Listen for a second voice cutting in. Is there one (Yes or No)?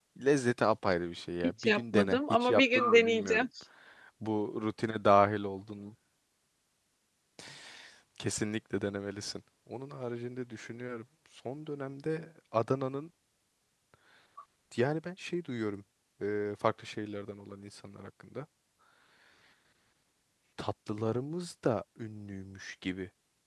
Yes